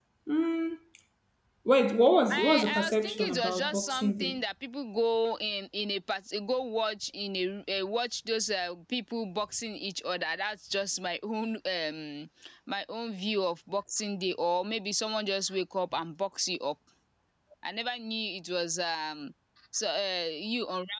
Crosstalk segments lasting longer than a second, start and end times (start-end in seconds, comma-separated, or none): 2.3-4.4